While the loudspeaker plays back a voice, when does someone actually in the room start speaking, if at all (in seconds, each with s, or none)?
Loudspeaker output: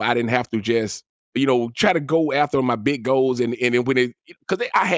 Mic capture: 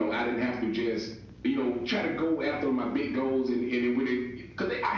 none